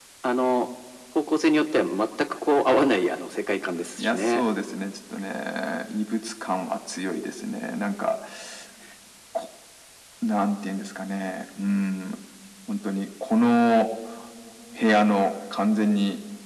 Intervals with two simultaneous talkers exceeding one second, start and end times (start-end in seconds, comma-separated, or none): none